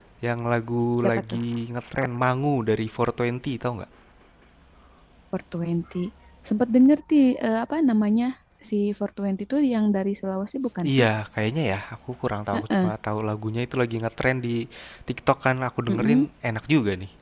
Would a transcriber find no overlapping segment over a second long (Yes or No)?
Yes